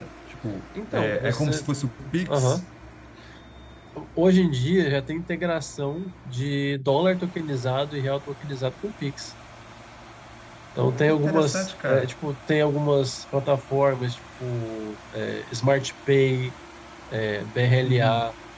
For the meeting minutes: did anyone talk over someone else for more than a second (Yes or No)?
Yes